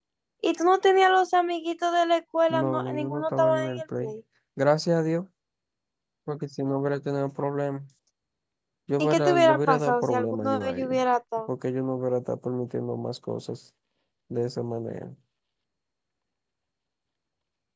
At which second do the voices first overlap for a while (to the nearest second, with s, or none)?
3 s